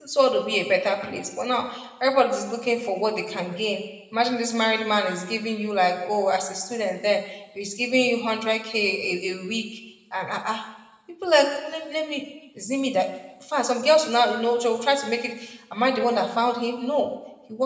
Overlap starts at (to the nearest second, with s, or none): none